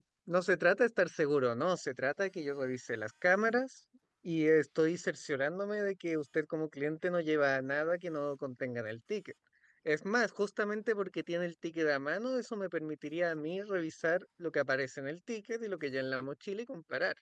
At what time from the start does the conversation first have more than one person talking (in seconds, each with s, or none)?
none